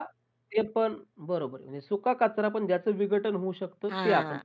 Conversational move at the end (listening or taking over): taking over